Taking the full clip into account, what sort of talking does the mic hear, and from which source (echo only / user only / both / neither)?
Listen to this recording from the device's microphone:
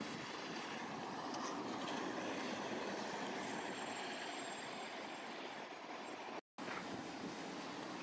neither